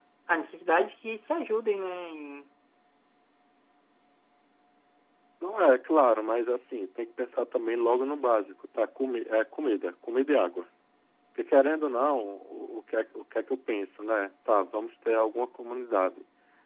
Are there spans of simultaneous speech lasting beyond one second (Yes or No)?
No